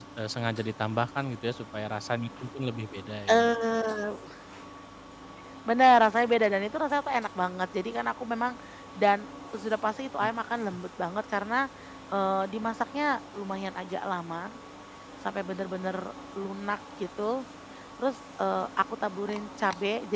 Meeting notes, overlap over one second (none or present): none